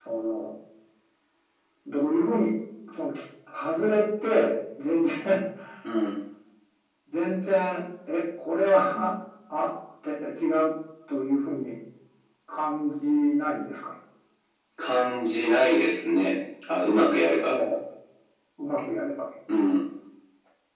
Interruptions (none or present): none